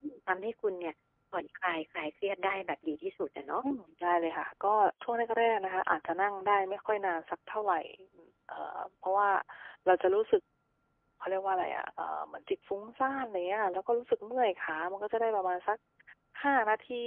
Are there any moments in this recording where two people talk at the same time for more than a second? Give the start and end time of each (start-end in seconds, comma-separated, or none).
none